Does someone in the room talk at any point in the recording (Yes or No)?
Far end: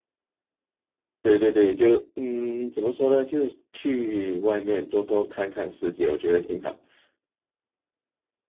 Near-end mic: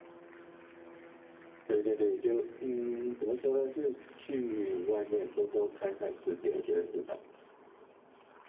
No